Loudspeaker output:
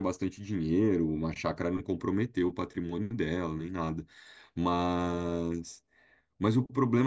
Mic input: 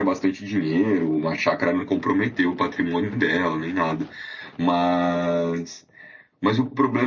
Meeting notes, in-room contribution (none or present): none